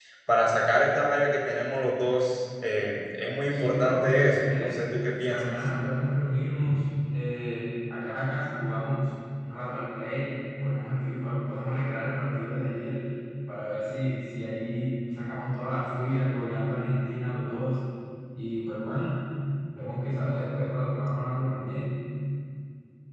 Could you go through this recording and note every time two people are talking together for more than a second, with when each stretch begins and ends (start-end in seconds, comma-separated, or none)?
3.5-4.8